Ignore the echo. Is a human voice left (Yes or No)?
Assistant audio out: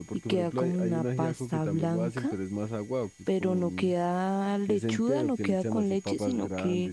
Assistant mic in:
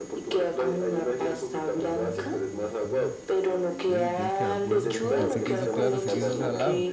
Yes